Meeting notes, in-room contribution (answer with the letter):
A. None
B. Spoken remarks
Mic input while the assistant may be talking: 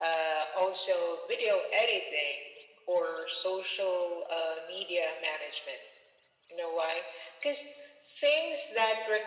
A